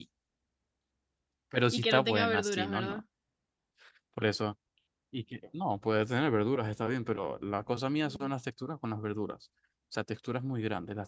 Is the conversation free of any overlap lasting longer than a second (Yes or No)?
No